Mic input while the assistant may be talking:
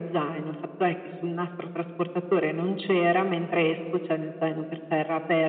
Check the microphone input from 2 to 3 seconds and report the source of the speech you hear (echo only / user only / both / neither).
echo only